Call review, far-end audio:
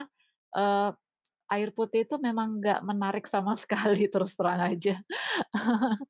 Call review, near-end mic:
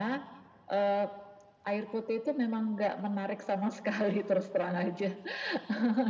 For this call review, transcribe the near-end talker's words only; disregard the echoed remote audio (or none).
none